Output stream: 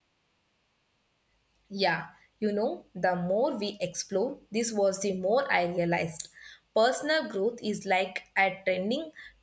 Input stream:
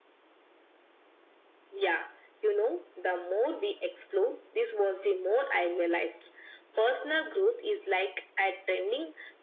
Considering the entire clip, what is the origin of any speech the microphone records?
echo only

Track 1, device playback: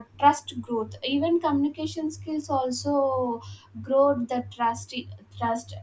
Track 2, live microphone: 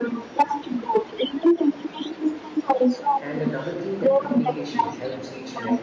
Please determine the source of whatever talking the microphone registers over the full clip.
both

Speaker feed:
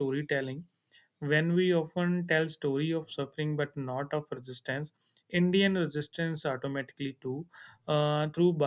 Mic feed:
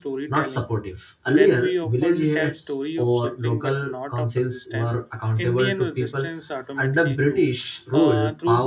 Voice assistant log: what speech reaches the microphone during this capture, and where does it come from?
both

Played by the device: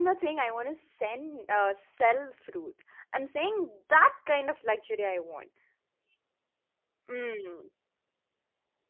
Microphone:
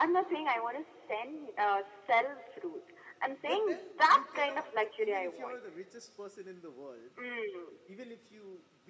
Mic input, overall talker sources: both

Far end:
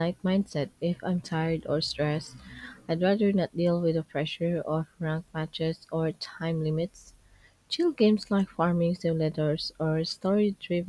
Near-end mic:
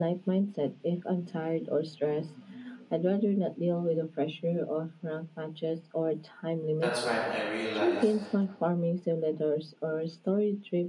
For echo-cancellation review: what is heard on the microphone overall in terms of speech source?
both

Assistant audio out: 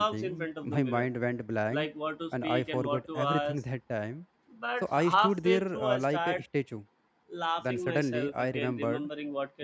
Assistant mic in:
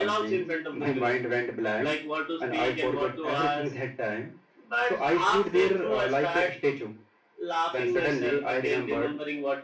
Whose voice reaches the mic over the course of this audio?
echo only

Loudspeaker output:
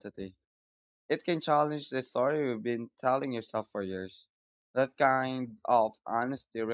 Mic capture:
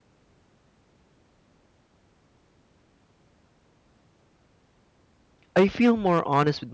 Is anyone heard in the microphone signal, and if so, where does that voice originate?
user only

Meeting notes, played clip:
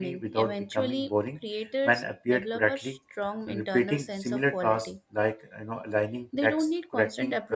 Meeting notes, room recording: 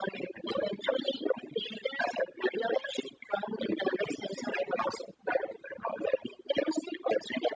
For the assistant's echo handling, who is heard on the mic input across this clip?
echo only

